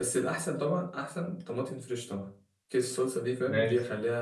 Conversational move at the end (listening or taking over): listening